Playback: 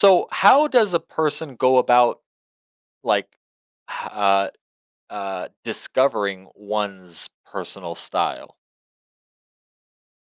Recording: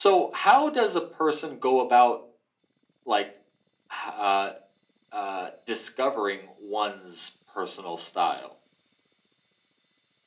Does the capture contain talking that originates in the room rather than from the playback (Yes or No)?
No